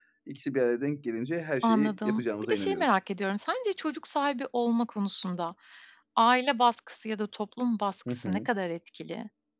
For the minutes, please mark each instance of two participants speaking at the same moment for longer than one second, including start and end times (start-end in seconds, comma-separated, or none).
1.6-2.9